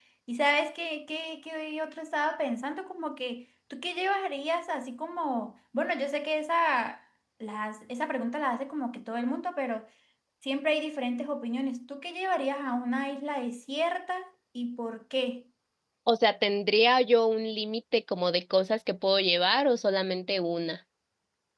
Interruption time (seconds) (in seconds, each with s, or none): none